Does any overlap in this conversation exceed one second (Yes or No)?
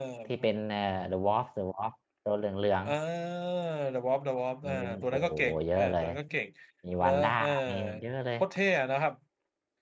Yes